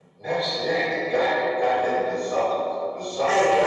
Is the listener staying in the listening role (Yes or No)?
No